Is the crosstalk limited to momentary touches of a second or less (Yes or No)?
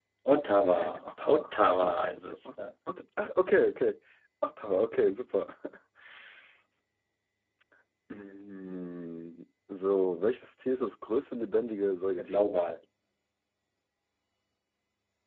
No